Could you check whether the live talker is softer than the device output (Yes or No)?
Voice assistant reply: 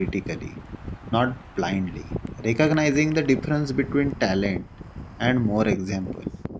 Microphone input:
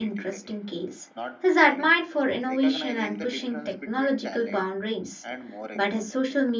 No